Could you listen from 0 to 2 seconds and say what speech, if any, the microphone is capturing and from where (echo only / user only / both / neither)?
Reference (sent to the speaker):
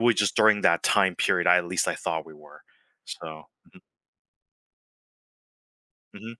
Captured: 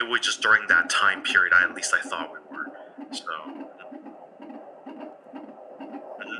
echo only